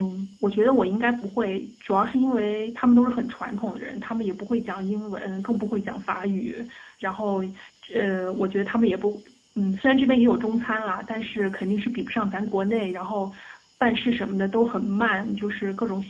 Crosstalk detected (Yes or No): No